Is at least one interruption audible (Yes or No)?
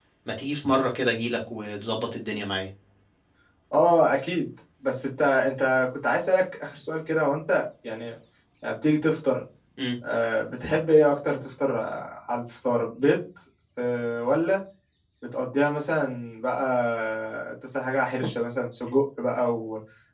No